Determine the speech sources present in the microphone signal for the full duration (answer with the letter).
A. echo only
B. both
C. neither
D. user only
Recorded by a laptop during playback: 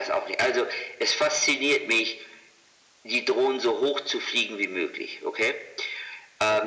A